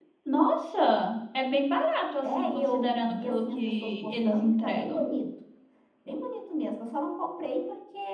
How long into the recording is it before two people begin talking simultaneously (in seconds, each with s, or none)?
2.2 s